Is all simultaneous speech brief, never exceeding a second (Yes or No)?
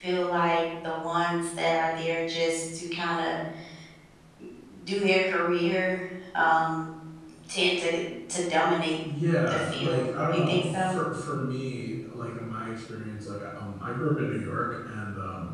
No